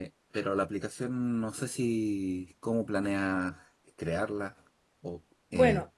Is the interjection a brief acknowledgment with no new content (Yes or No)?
No